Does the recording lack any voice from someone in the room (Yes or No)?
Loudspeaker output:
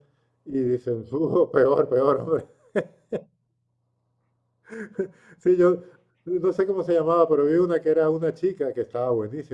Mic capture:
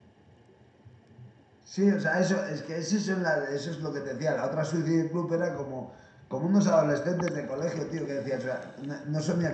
No